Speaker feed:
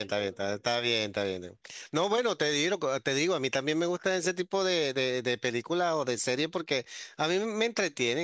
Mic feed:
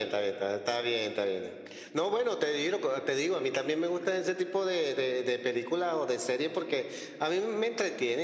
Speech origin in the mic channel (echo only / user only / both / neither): echo only